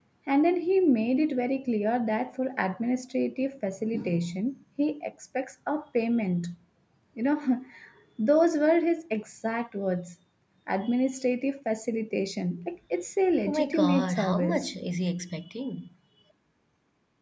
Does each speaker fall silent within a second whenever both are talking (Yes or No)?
No